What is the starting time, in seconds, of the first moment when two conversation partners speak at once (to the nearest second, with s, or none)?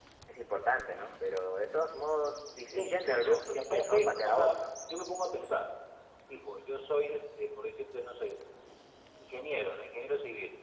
3 s